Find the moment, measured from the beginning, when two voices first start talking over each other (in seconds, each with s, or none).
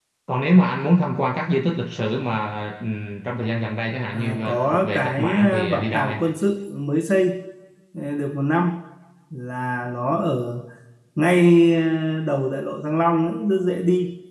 4.1 s